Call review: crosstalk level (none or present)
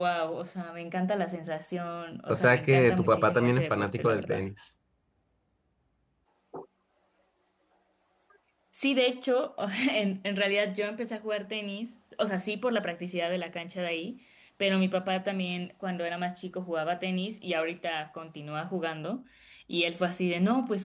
present